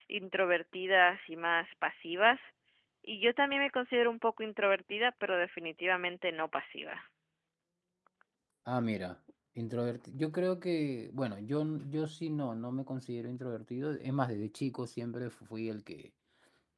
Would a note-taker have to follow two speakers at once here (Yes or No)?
No